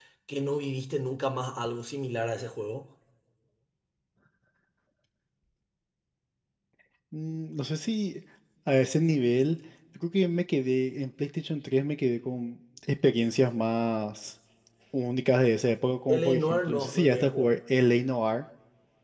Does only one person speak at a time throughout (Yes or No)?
No